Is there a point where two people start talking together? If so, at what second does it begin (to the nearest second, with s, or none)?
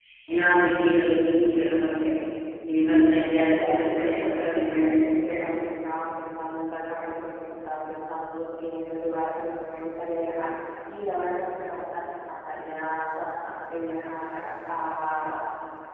3 s